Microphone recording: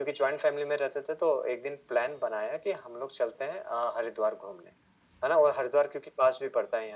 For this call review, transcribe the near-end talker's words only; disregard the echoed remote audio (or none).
none